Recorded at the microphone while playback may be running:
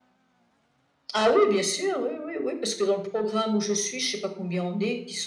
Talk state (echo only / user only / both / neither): echo only